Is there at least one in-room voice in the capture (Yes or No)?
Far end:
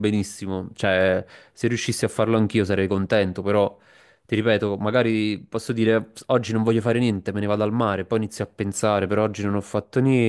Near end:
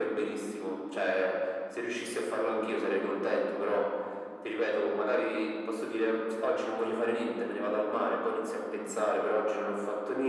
No